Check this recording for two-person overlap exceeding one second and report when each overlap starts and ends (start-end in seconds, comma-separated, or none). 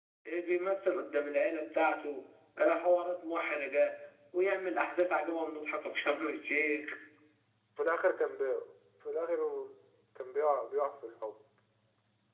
none